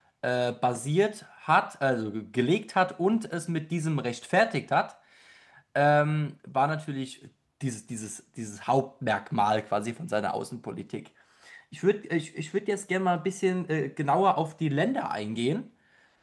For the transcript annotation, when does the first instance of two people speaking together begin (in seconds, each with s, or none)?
none